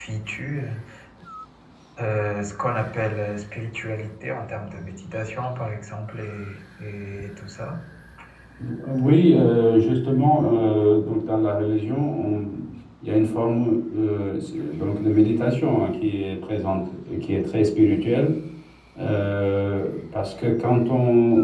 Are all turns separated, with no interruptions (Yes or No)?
Yes